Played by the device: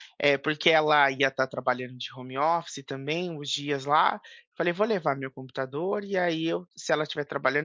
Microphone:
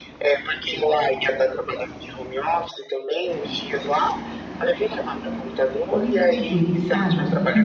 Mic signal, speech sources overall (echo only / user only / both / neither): both